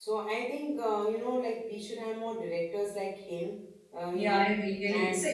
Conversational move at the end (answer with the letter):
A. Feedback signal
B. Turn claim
B